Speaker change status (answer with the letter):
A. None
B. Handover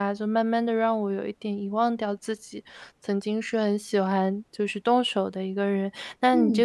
A